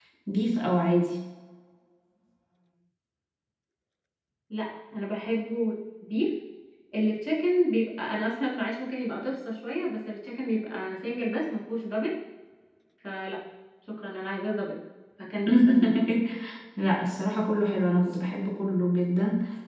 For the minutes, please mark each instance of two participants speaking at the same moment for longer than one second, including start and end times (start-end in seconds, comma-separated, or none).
none